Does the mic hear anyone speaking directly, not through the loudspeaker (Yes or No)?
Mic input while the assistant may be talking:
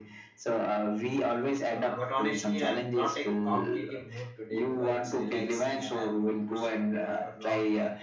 Yes